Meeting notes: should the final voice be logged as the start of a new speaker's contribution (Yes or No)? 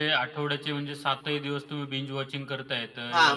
Yes